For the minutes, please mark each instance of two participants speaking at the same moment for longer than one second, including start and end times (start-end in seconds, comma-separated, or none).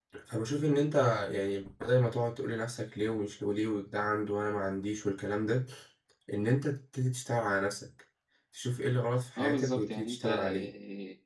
9.4-10.7